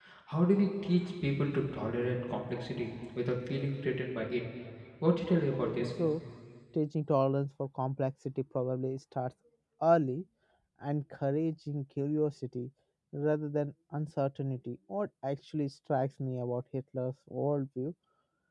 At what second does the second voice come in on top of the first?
none

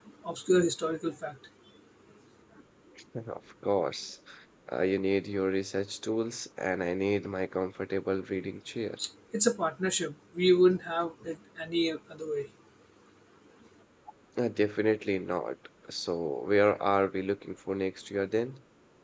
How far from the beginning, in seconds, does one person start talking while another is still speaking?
none

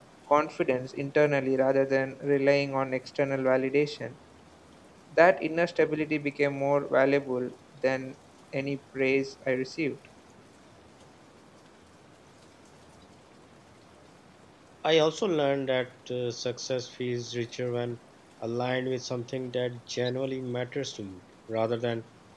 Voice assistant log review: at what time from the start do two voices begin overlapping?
none

